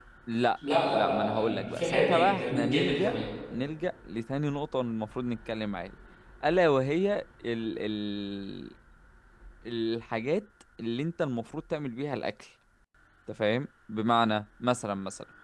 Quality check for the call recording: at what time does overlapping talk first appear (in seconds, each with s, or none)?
0.7 s